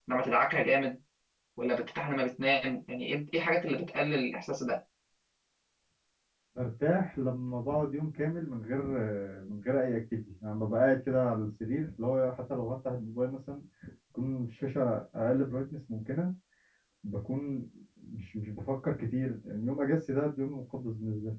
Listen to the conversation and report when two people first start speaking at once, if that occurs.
none

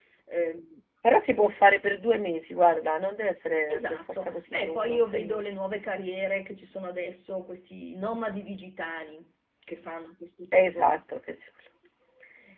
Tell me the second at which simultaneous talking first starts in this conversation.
4 s

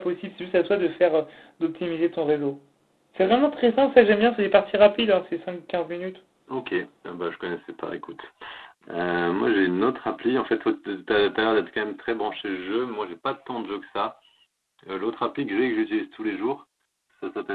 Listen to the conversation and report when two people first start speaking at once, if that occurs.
none

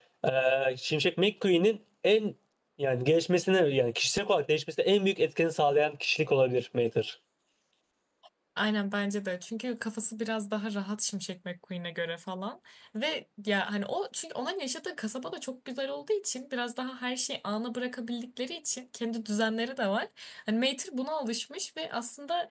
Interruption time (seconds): none

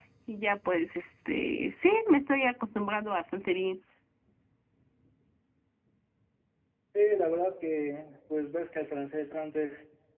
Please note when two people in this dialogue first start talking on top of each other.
none

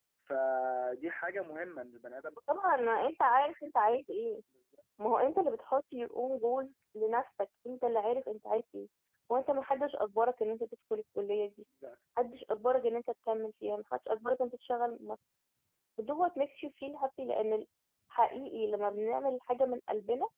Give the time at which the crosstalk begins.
none

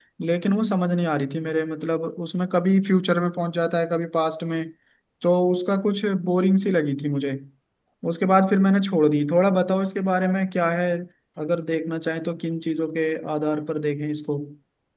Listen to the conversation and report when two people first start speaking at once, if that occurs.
none

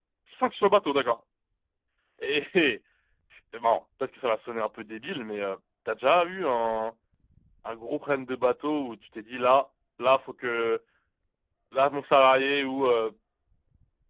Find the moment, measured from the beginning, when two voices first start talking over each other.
none

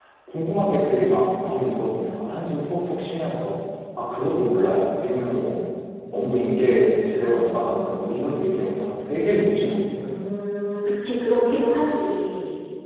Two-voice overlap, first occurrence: none

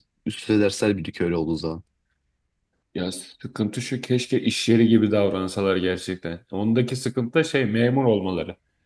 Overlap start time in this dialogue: none

